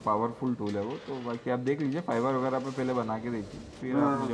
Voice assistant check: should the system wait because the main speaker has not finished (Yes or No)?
No